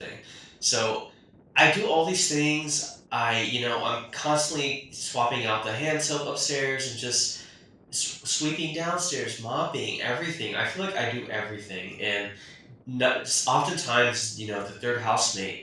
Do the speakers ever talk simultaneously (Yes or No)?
No